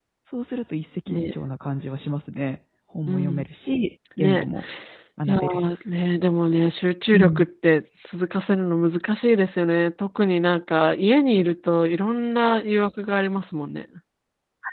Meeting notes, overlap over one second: none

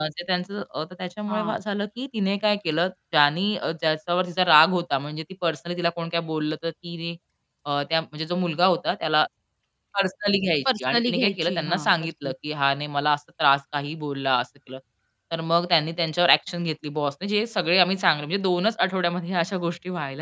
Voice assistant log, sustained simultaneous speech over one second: present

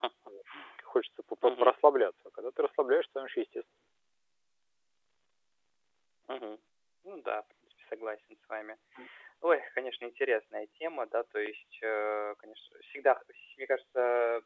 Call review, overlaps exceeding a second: none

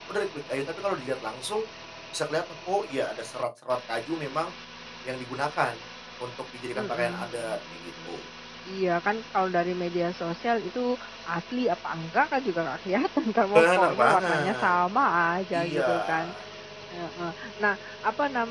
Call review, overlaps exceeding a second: present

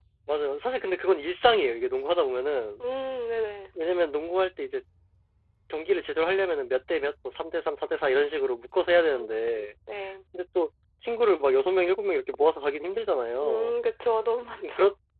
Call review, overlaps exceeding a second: none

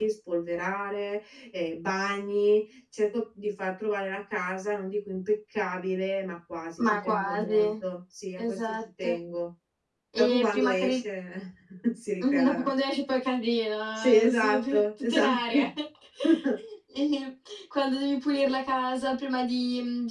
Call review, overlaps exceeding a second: present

